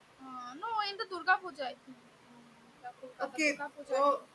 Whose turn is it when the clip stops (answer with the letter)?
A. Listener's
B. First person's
A